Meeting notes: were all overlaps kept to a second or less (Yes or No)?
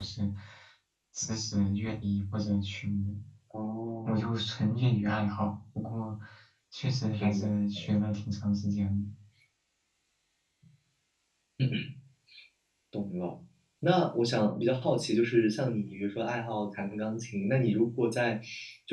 Yes